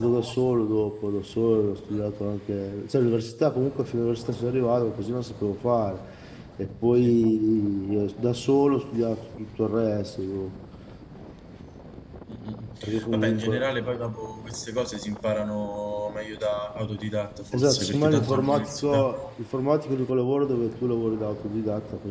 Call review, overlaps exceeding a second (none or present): present